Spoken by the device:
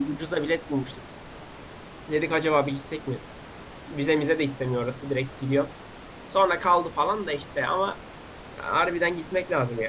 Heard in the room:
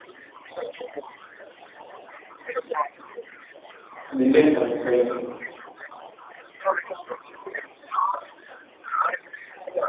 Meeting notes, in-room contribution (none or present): present